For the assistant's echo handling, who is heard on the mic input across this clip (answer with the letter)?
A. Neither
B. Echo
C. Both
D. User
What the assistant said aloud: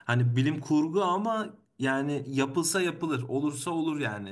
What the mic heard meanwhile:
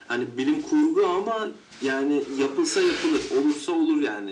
B